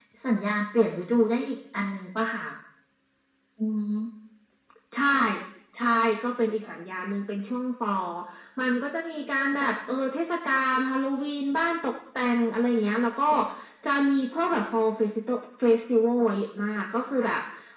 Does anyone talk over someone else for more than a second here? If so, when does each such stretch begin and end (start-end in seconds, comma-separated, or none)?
none